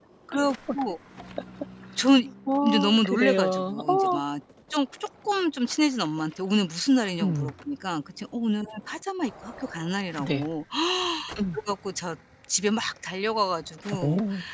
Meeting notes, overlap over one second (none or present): present